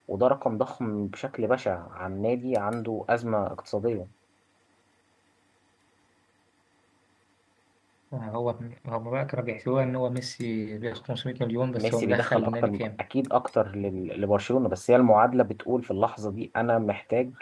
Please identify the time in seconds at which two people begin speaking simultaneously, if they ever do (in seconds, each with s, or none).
11.8 s